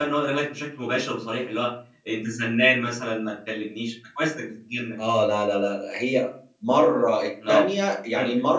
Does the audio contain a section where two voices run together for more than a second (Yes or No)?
No